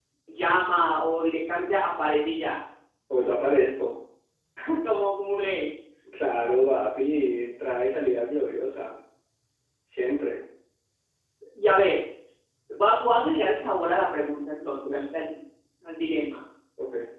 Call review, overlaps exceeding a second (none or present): none